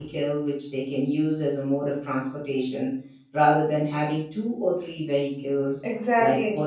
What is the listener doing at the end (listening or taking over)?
listening